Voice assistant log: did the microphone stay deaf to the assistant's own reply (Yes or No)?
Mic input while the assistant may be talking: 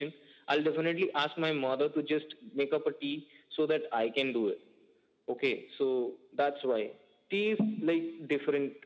No